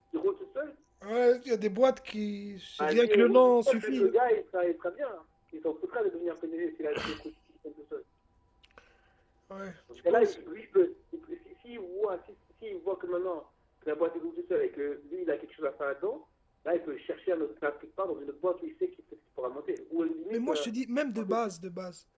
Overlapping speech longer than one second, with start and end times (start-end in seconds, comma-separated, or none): 2.8-4.1